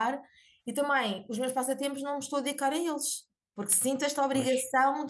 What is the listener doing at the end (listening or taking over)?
listening